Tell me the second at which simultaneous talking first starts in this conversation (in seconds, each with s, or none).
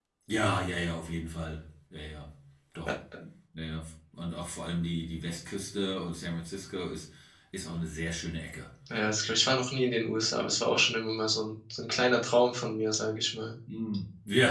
none